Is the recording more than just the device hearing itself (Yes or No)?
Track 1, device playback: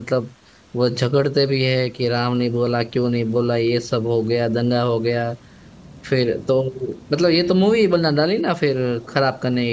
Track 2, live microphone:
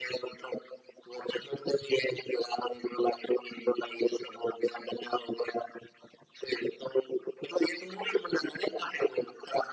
No